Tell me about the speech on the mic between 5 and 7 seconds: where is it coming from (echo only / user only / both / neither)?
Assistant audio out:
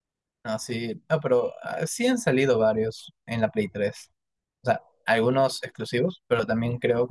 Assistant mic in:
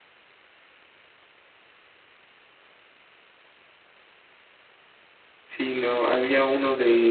user only